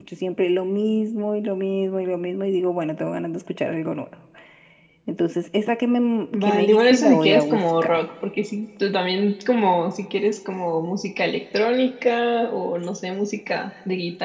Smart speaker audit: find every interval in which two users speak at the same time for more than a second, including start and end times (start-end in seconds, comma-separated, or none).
6.3-8.0